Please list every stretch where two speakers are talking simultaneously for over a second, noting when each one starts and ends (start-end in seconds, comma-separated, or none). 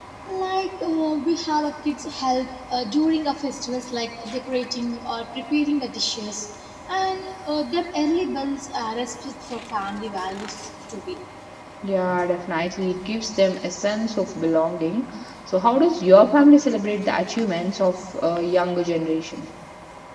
none